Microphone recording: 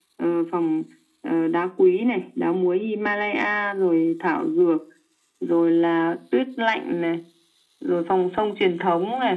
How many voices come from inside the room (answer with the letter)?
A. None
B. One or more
A